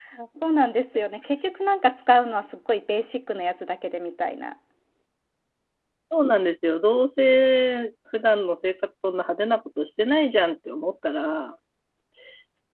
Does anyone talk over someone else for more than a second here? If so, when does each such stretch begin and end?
none

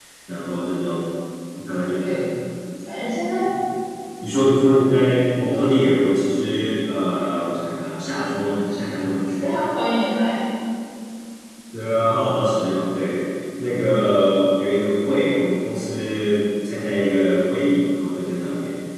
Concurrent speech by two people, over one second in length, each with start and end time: none

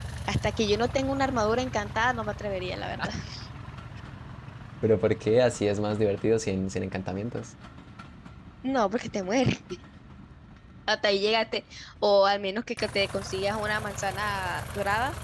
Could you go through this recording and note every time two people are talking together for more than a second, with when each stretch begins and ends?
none

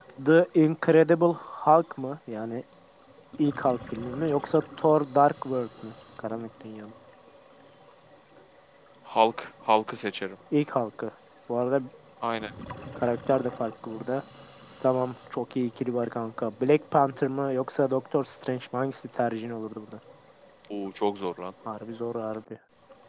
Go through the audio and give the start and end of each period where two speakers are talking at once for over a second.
none

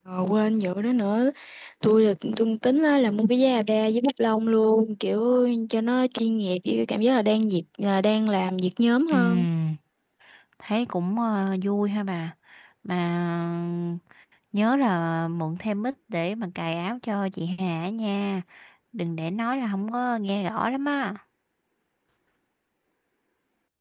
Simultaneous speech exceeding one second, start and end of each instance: none

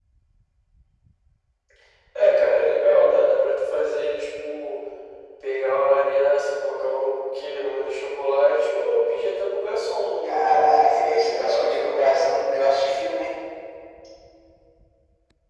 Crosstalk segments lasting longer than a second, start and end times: 10.3-12.3

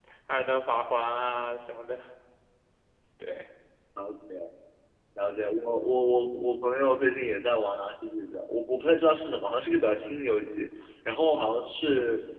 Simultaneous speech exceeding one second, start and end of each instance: none

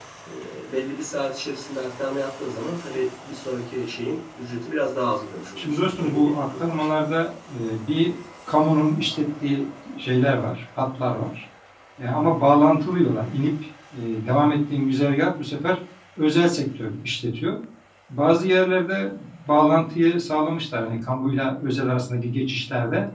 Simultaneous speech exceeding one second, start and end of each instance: 5.6-6.9

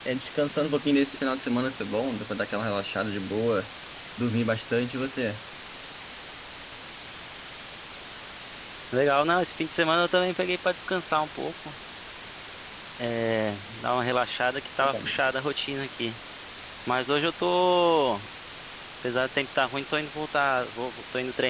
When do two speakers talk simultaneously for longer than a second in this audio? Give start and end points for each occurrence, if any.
none

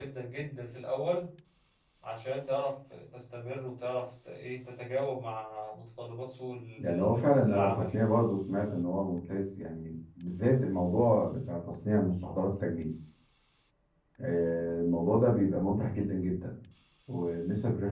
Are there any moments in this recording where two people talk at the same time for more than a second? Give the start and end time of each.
6.8-8.1

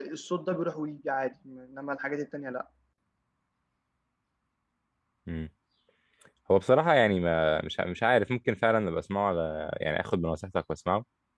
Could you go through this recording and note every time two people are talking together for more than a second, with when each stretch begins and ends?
none

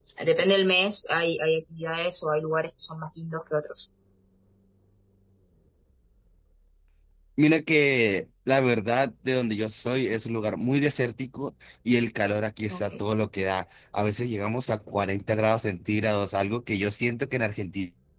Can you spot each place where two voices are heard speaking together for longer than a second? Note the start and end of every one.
none

